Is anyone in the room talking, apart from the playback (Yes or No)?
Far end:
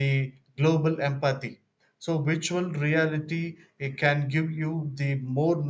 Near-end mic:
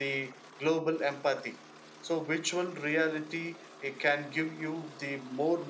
No